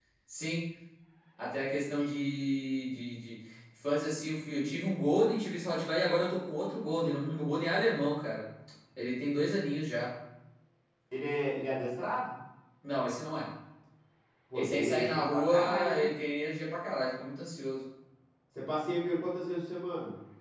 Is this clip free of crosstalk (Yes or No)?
No